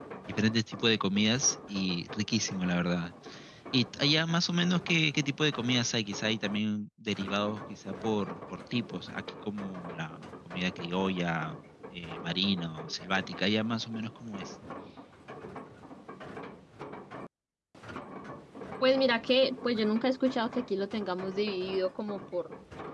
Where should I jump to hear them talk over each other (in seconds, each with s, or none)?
none